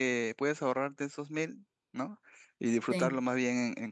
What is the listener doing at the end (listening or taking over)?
listening